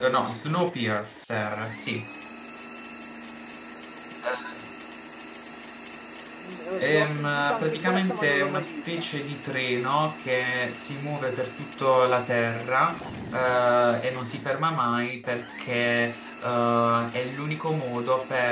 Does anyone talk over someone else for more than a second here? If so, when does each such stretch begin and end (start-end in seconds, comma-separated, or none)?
6.8-9.1